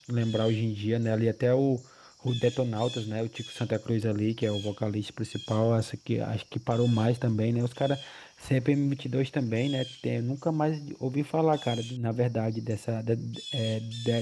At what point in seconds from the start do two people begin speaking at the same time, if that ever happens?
none

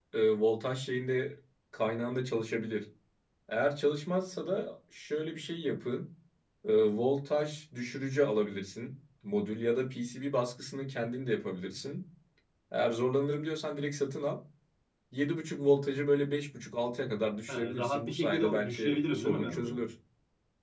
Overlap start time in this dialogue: 17.5 s

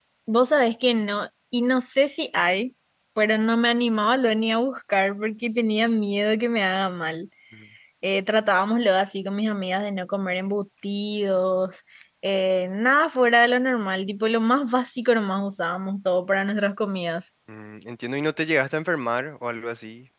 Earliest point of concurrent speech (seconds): none

